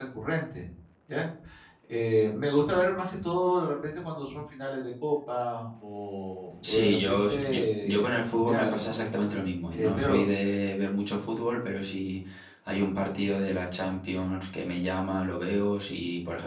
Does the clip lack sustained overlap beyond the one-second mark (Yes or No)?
No